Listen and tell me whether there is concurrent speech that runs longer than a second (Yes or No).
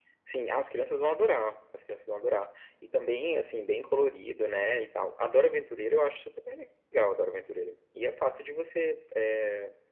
No